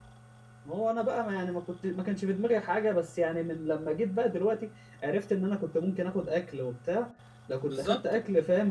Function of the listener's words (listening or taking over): listening